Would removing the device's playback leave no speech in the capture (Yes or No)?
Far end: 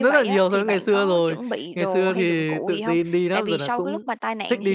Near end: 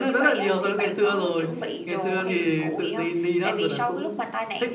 Yes